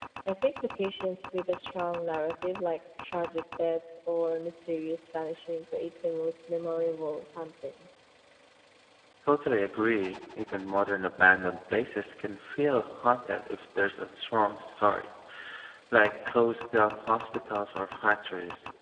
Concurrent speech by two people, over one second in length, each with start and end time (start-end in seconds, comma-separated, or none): none